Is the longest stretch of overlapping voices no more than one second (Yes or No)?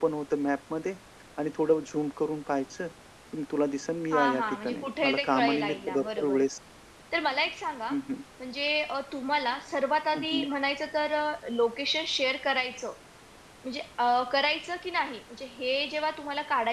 No